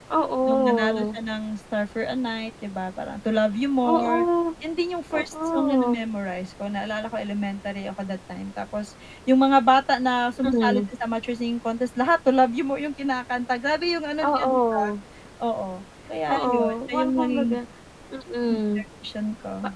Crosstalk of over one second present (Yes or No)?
Yes